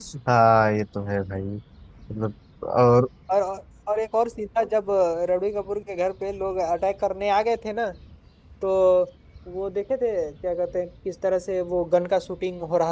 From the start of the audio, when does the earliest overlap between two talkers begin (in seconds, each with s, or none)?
none